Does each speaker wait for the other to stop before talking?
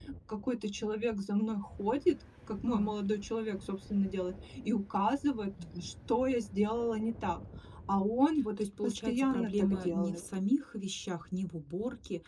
No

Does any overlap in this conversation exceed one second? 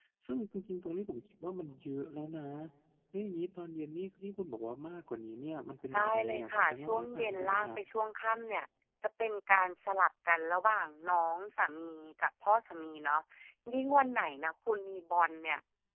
Yes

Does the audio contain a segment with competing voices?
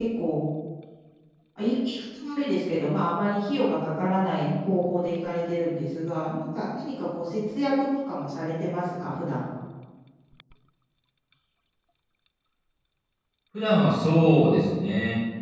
No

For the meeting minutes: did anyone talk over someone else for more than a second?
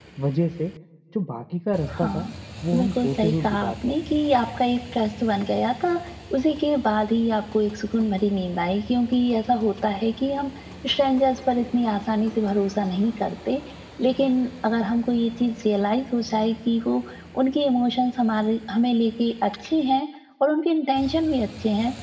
Yes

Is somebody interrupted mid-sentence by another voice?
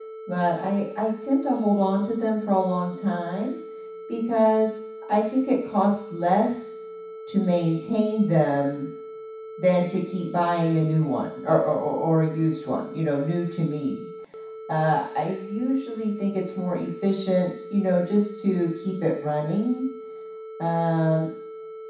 No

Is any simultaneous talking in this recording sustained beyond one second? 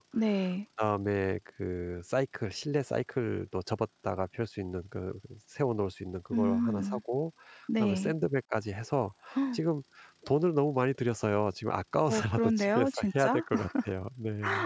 Yes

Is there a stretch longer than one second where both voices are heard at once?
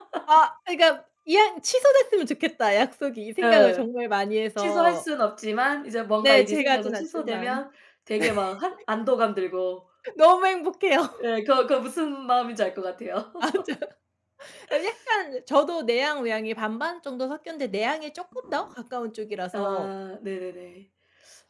Yes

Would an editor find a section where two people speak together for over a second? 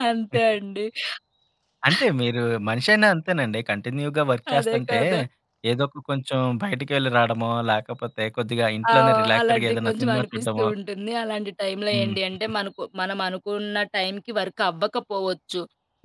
Yes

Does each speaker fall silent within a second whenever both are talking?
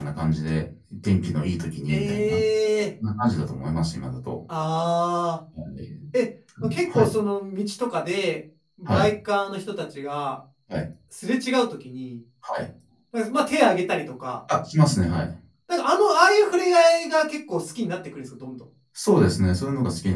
Yes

